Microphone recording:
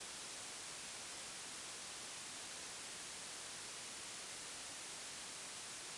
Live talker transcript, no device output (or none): none